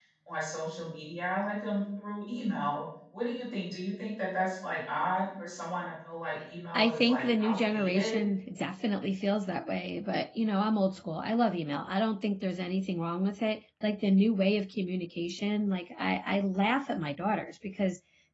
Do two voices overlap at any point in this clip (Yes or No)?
Yes